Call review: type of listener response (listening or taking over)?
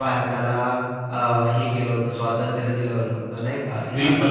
taking over